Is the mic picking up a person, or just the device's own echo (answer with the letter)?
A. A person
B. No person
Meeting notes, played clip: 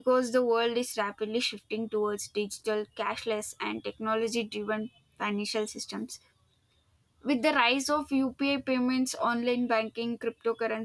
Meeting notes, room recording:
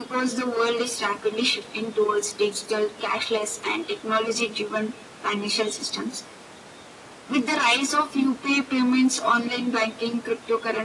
B